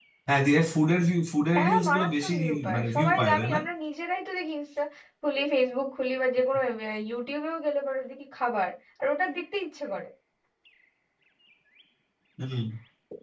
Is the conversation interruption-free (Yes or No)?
No